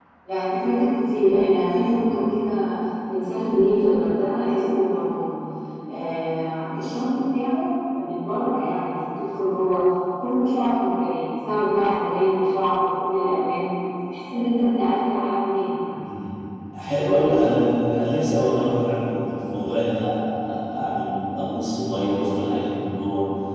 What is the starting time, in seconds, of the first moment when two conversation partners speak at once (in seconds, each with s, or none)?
none